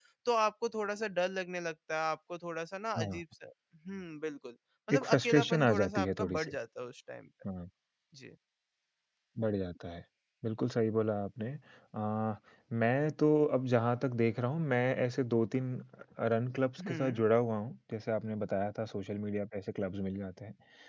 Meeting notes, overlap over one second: present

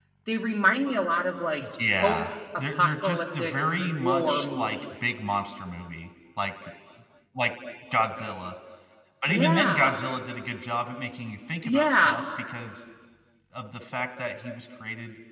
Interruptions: present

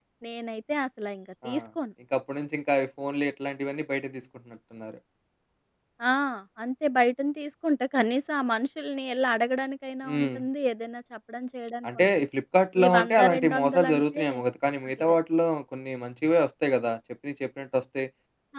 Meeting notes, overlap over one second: present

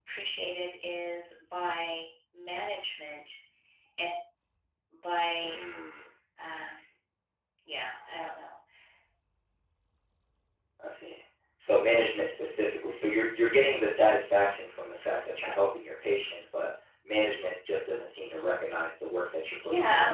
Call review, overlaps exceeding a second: none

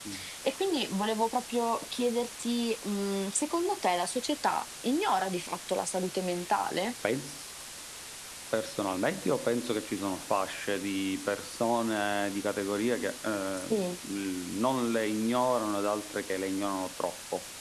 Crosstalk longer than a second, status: none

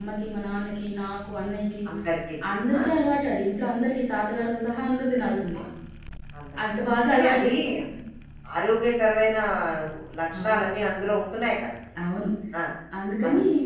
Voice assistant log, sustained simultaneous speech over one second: none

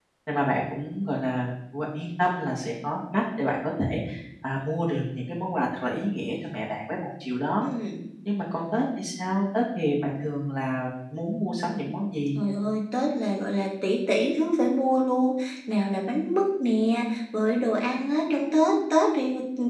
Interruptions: none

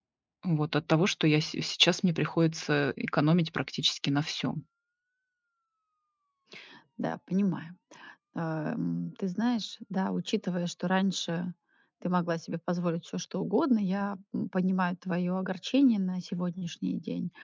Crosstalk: none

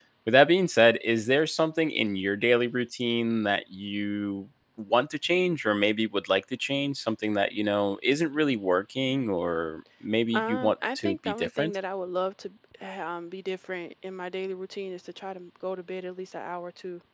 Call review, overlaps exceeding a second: present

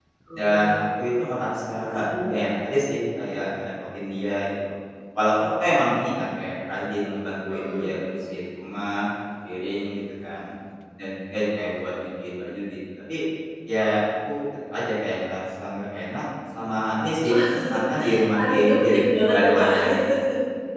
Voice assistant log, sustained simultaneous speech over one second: present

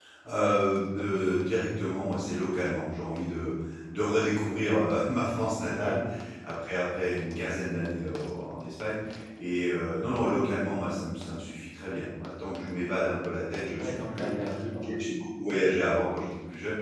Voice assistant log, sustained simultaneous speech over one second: none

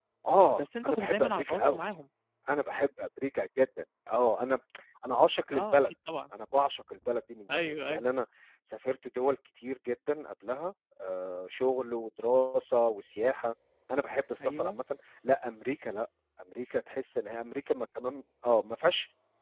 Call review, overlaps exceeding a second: present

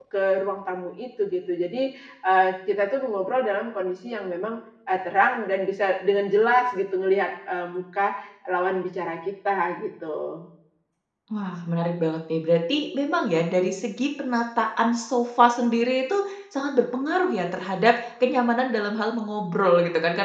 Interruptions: none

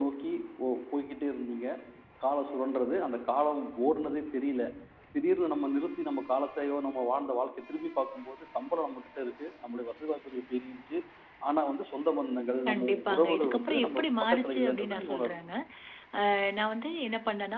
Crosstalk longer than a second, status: present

